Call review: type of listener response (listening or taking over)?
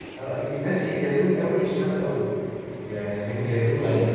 listening